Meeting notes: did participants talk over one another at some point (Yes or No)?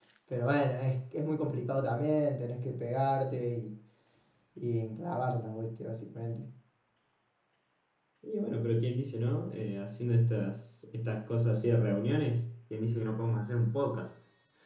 No